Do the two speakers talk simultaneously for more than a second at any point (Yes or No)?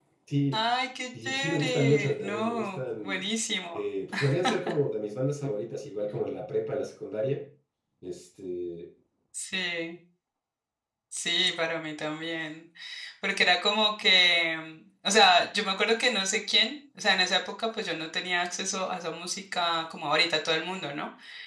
Yes